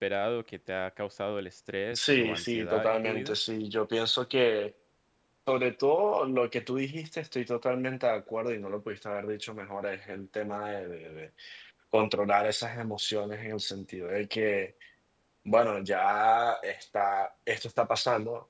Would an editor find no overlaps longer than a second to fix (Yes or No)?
No